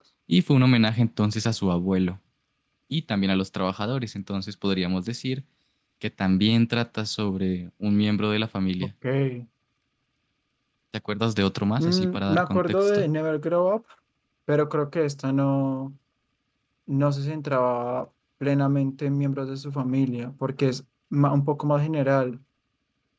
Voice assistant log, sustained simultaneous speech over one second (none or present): present